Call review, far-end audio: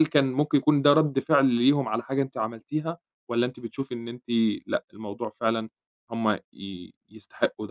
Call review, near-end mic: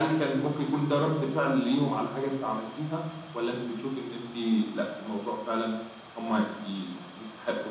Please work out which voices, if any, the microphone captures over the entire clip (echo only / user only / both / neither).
echo only